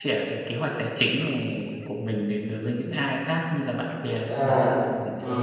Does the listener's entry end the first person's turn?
Yes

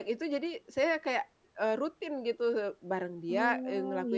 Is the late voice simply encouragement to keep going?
Yes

